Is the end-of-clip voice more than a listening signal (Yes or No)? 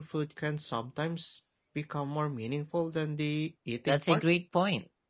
Yes